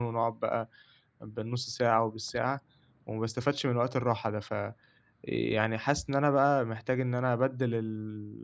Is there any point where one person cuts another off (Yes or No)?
No